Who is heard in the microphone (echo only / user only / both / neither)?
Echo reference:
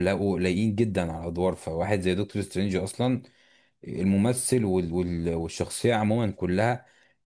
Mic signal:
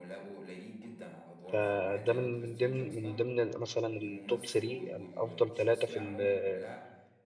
both